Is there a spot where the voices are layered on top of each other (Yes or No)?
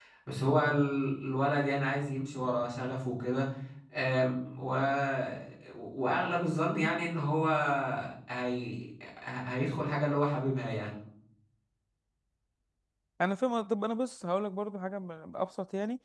No